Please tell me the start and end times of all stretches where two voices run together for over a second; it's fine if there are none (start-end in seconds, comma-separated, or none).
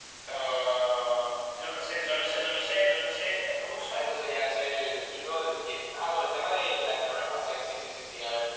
none